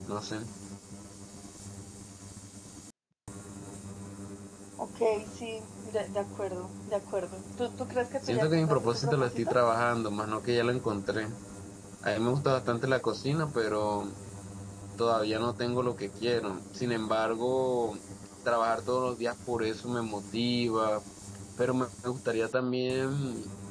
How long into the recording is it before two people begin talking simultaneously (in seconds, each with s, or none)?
8.2 s